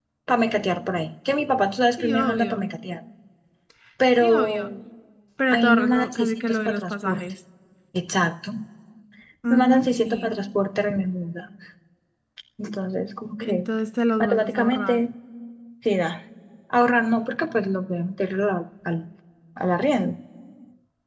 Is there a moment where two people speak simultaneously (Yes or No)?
Yes